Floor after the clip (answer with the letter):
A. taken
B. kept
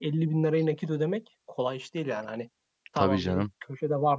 B